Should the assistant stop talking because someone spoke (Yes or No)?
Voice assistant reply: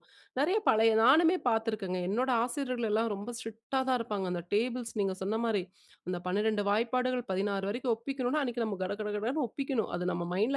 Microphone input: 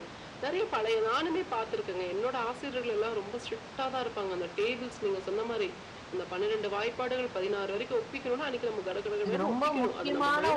Yes